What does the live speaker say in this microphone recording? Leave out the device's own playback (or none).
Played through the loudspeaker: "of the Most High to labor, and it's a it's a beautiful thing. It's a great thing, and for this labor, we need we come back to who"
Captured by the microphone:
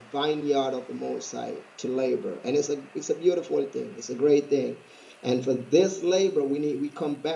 none